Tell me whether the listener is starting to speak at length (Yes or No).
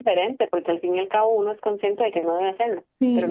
Yes